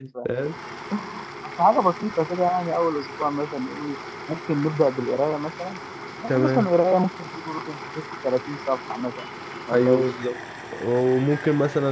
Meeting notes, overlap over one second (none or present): none